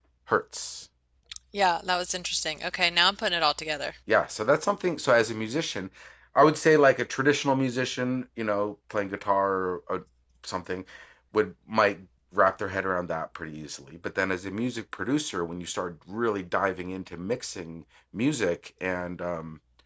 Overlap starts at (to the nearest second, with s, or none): none